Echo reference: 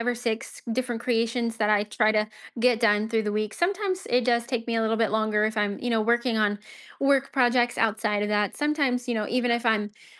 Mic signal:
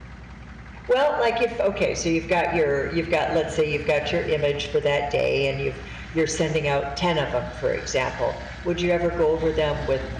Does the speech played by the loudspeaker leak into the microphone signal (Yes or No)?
No